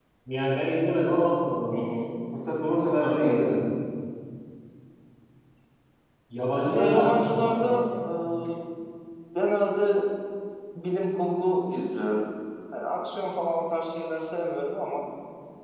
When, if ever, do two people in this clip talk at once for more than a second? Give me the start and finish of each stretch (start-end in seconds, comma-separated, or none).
6.7-7.9